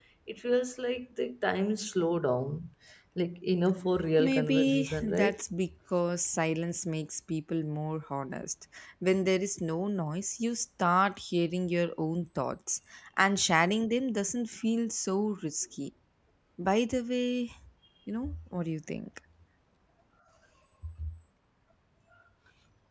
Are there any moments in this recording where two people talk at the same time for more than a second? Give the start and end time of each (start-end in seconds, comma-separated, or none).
4.2-5.4